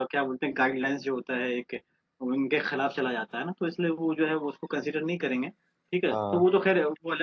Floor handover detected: No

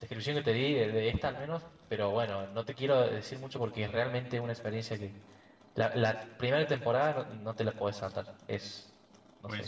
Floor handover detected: Yes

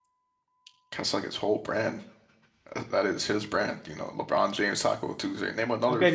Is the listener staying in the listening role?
No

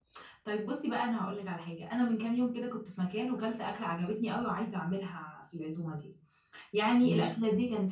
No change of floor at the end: Yes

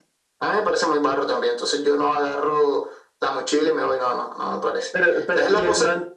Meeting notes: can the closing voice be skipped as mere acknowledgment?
No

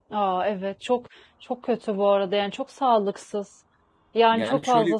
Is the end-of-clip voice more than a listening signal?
Yes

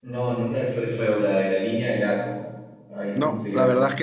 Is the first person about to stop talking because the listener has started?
Yes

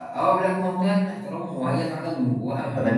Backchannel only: No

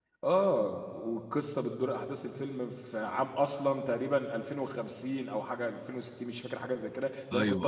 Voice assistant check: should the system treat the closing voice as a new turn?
No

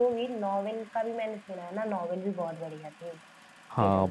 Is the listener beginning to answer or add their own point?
Yes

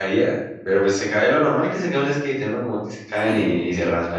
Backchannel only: Yes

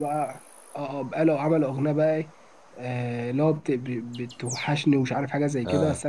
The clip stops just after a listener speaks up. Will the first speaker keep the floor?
Yes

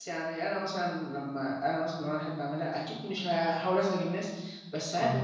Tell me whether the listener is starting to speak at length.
No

